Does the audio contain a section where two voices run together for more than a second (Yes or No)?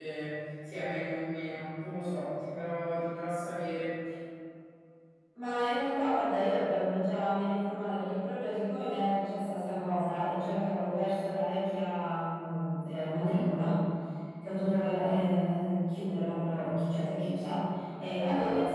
No